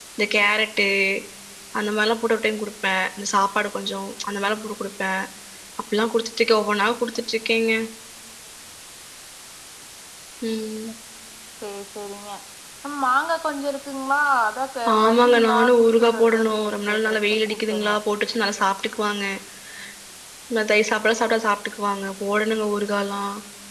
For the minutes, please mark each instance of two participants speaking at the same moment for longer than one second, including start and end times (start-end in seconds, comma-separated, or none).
15.1-17.1